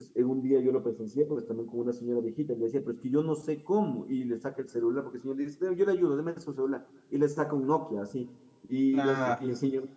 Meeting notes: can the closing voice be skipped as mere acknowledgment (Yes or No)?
Yes